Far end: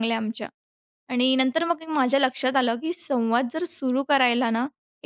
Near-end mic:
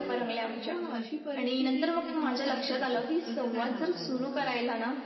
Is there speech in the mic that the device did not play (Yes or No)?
Yes